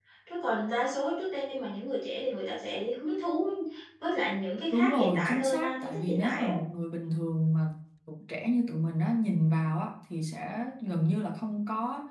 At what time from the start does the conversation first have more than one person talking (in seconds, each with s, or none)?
4.7 s